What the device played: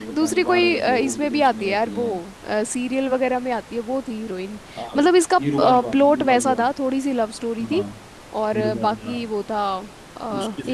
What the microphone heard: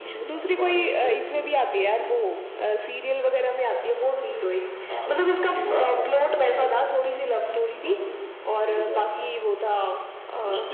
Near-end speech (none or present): none